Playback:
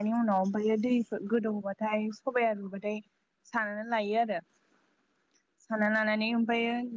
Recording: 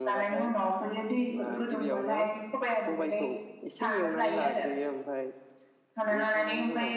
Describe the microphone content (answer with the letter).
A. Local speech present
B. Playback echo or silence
A